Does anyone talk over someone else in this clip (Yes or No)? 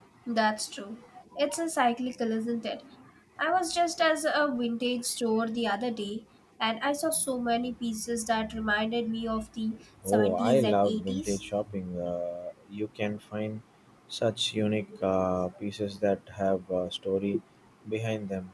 Yes